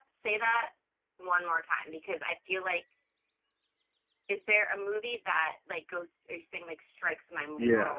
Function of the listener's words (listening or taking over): taking over